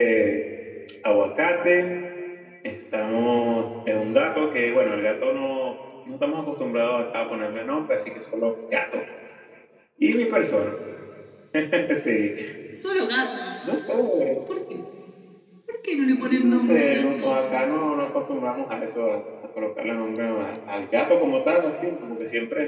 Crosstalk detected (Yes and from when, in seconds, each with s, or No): Yes, from 16.2 s